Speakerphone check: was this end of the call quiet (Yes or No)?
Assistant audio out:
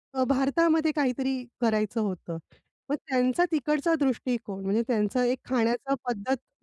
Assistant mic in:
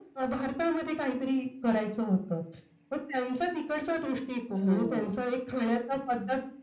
No